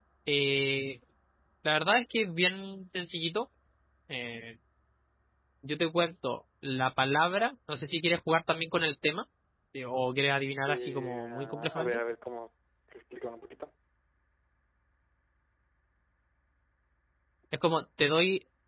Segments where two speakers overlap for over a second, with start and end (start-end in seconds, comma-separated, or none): 10.7-12.0